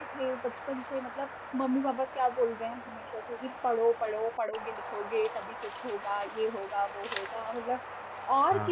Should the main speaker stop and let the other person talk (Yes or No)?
No